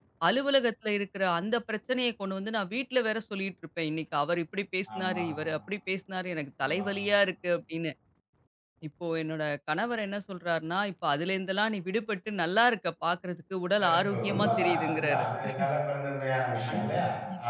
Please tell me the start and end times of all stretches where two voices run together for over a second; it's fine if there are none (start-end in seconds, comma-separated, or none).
13.8-15.2